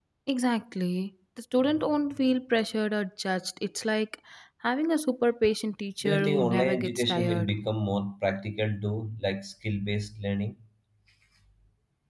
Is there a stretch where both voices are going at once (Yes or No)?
Yes